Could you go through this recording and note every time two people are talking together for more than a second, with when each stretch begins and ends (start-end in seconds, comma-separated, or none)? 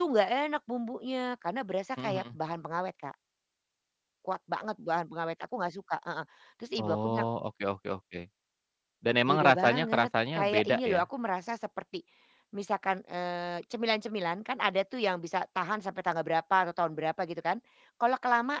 9.3-11.0